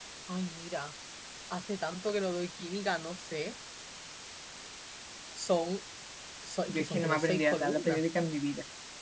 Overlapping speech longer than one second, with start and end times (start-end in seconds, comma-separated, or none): 6.7-8.0